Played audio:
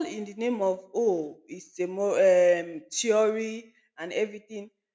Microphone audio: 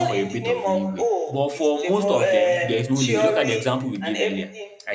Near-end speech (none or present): present